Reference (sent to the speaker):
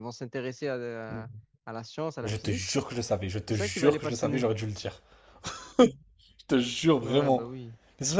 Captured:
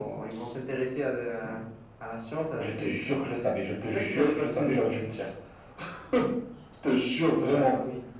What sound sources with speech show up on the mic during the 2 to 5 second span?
echo only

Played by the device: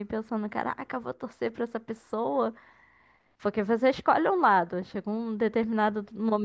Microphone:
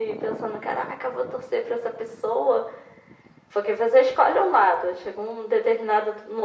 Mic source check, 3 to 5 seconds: echo only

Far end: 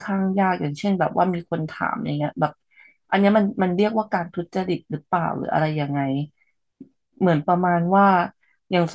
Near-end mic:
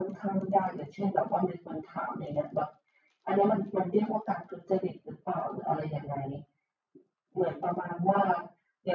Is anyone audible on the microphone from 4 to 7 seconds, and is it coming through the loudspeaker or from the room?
echo only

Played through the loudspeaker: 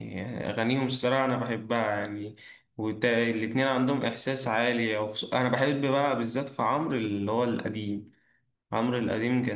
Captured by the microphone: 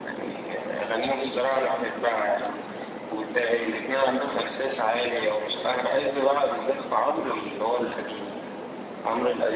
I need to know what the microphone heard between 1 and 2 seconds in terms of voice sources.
echo only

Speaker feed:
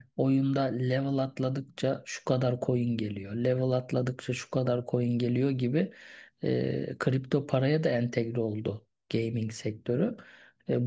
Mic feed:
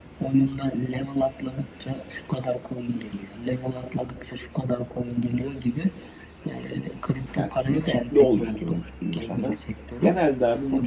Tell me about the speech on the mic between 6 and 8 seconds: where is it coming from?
both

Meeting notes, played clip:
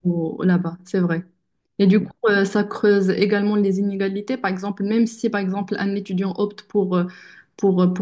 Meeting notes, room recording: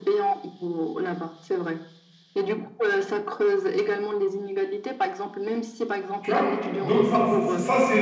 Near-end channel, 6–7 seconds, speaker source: both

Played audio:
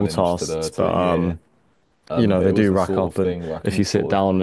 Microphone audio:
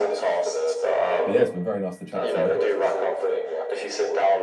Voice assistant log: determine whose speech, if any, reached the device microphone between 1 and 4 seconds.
both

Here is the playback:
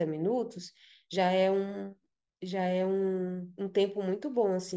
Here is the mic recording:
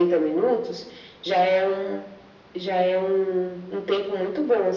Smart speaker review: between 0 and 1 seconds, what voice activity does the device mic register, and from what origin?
echo only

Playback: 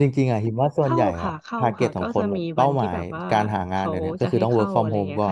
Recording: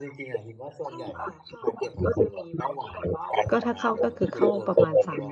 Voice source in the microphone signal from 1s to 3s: echo only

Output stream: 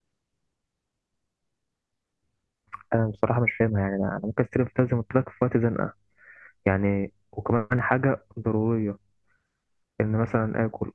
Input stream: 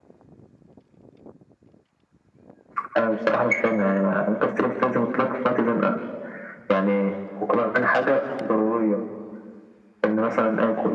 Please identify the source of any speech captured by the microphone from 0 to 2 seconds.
neither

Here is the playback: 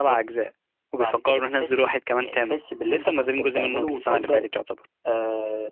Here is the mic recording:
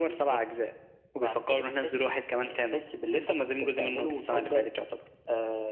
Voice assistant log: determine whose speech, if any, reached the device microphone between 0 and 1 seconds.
echo only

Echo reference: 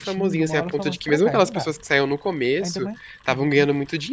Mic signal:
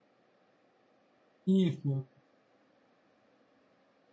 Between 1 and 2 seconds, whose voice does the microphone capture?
user only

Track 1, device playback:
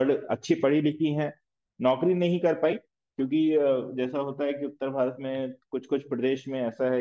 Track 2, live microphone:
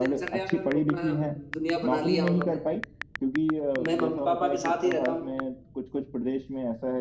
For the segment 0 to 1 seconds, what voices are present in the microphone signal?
both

